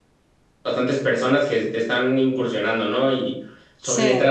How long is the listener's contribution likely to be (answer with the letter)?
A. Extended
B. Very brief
B